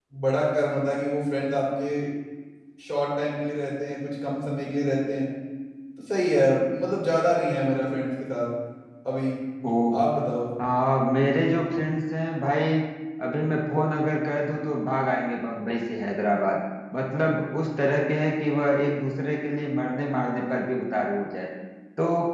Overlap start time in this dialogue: none

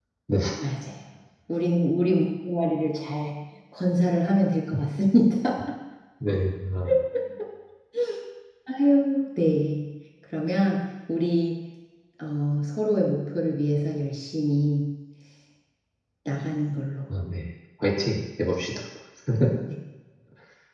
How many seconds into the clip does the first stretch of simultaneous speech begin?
none

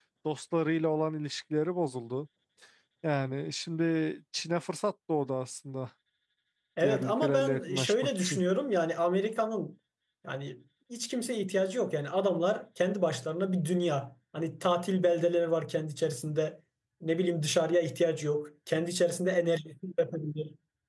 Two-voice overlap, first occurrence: 6.8 s

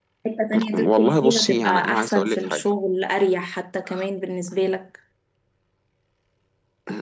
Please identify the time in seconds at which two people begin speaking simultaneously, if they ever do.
0.7 s

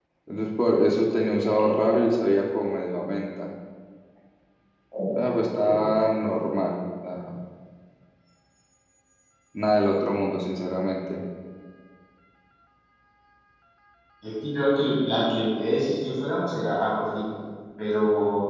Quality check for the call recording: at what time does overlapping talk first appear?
none

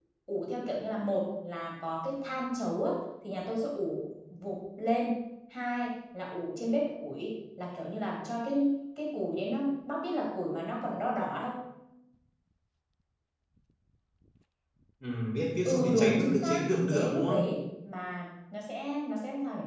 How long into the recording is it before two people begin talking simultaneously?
15.6 s

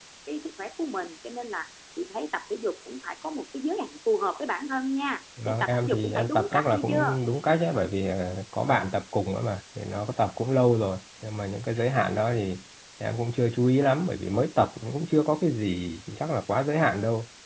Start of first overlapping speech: 5.4 s

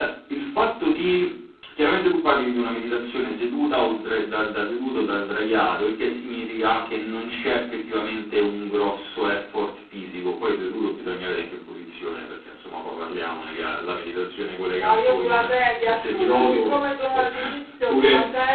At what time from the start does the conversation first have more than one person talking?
14.8 s

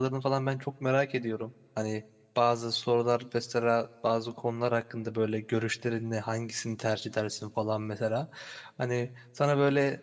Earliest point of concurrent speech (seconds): none

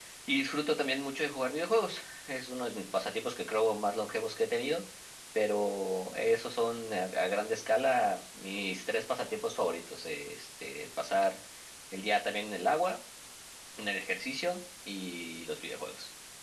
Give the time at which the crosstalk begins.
none

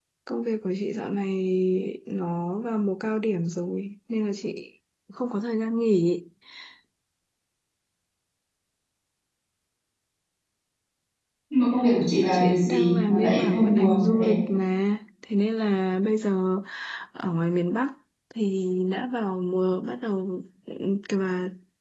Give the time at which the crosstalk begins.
12.3 s

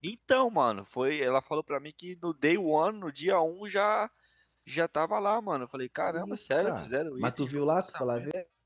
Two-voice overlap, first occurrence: 6.1 s

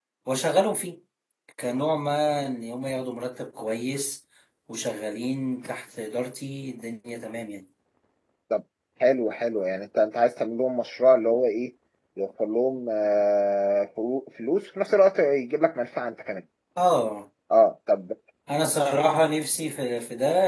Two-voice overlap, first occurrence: none

